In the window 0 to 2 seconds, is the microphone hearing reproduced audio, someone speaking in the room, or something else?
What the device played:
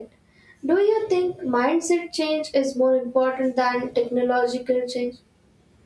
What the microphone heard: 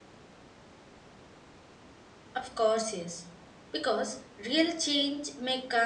neither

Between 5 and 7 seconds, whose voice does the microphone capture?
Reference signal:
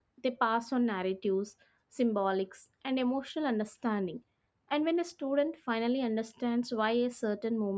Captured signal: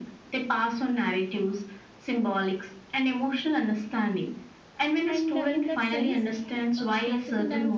both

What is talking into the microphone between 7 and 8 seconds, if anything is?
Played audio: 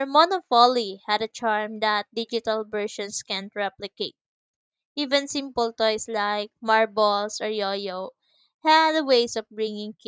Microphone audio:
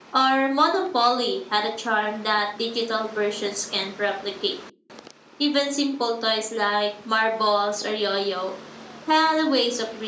echo only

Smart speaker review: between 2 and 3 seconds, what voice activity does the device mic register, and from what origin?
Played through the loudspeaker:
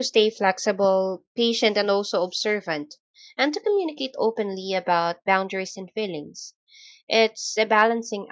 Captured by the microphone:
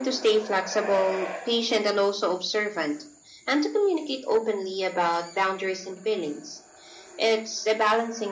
echo only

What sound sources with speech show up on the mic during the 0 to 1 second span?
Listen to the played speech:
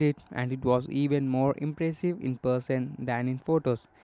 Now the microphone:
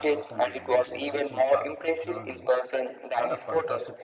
both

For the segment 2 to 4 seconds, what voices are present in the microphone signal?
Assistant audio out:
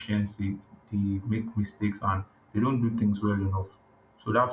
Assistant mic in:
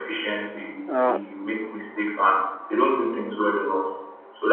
echo only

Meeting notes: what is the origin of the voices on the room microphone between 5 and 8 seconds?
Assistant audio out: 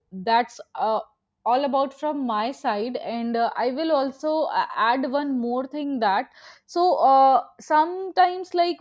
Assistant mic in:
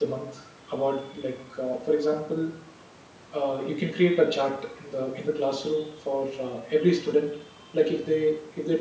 user only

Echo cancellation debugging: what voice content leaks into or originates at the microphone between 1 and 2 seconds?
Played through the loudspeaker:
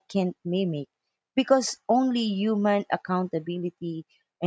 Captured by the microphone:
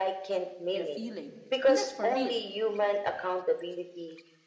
both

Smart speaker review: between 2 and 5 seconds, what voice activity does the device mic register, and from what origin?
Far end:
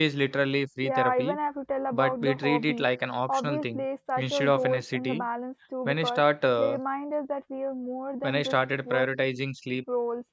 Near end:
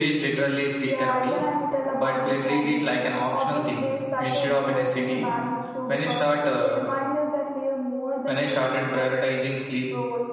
echo only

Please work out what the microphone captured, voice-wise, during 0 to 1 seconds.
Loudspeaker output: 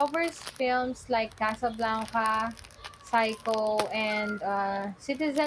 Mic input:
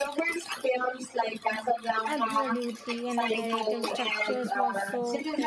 echo only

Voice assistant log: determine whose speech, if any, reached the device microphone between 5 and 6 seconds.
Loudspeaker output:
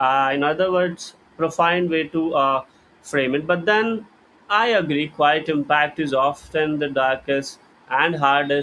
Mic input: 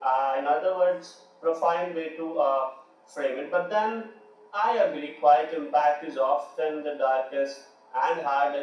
echo only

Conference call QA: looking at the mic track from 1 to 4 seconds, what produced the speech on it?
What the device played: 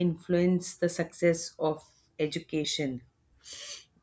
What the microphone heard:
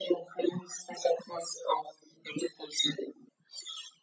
echo only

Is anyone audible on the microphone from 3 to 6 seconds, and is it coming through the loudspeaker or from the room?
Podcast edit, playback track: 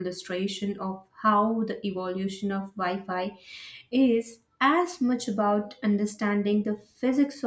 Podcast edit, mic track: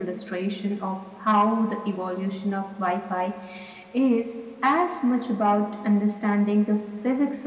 echo only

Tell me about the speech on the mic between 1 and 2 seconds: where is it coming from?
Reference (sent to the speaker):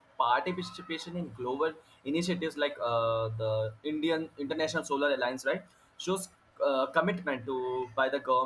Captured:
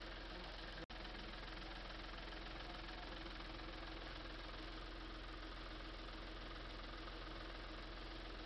neither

